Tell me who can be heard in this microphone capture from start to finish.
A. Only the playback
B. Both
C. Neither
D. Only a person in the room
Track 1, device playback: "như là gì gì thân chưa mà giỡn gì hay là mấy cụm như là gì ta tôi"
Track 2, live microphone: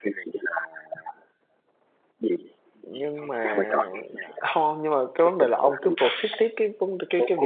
B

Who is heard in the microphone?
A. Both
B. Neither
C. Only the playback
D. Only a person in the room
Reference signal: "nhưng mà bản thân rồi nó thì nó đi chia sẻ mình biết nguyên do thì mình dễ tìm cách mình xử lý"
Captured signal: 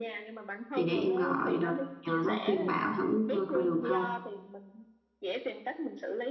A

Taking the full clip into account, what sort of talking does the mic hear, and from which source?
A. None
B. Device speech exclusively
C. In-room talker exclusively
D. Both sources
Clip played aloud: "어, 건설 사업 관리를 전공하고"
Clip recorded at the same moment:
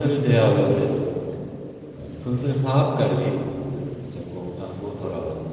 B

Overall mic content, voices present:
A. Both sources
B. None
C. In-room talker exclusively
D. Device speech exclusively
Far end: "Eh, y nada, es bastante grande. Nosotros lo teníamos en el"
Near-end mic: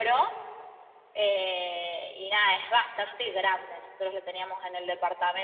D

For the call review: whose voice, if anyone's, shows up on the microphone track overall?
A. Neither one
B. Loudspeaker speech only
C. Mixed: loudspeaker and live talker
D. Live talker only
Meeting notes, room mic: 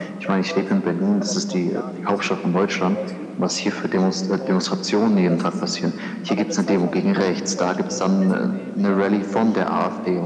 C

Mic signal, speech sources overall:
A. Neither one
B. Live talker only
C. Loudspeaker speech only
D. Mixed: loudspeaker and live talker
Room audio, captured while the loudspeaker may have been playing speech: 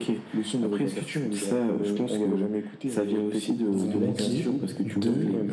D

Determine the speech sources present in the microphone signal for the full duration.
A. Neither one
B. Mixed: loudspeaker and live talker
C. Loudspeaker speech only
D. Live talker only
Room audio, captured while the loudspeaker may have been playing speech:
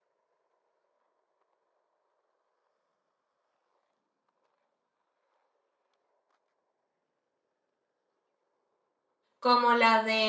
D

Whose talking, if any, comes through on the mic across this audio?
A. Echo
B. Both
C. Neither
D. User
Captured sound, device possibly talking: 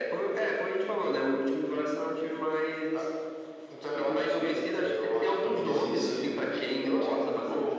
A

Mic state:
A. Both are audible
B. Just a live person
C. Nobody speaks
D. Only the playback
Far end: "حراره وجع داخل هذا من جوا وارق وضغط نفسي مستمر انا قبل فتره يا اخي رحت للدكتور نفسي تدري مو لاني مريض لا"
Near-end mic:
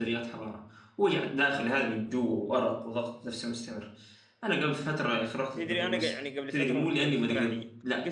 A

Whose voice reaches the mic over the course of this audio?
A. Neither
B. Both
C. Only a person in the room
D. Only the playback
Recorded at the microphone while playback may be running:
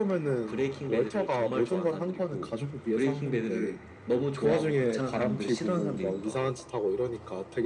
D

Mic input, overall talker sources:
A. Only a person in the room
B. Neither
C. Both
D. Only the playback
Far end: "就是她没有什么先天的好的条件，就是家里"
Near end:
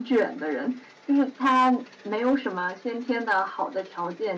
D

